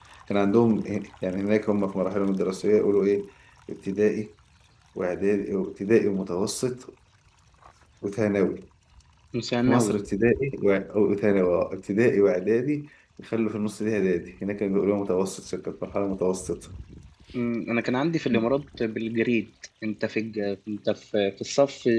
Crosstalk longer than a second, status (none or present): none